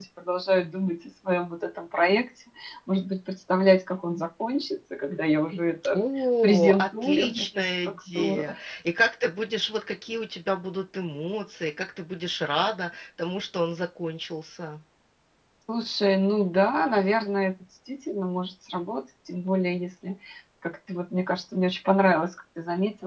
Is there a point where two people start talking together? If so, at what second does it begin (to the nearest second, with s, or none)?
6 s